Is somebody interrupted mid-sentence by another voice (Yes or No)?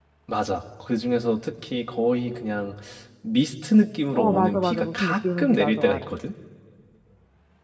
Yes